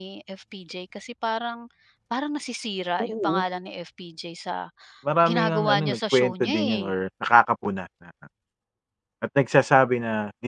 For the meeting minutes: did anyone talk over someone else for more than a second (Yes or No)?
Yes